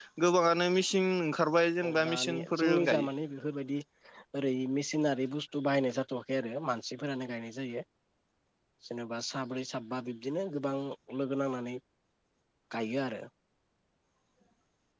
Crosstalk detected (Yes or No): Yes